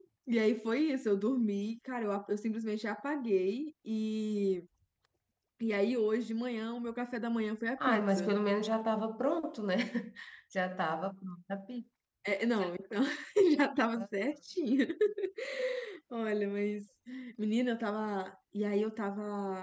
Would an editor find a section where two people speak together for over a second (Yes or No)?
No